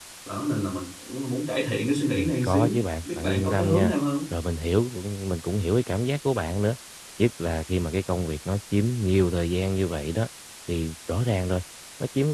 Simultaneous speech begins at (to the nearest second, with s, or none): 2 s